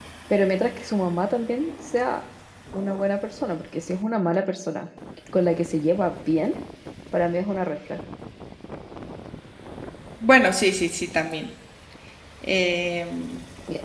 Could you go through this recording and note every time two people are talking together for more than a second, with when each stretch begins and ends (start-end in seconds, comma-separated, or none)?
none